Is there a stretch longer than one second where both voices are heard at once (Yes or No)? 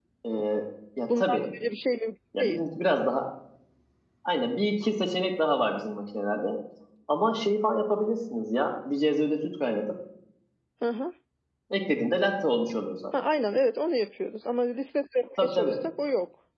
No